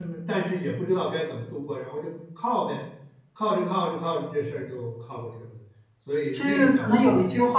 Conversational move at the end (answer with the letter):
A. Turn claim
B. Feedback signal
A